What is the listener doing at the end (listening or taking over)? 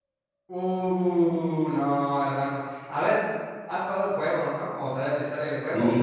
taking over